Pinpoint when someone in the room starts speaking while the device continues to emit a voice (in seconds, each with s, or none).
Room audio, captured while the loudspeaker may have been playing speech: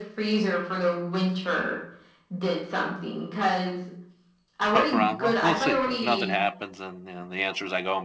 4.7 s